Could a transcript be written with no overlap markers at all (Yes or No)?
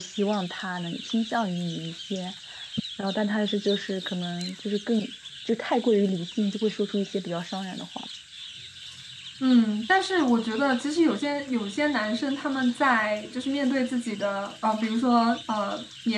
Yes